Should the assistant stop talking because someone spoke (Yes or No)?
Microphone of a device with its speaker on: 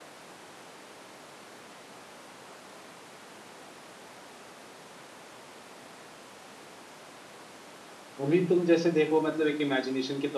Yes